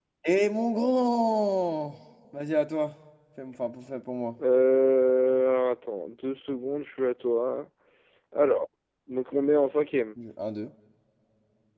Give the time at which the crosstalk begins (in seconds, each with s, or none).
none